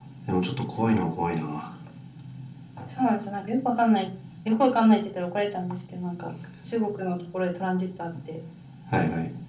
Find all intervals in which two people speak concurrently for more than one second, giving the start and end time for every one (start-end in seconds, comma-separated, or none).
none